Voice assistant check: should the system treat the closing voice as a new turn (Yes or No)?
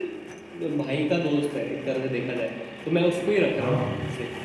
No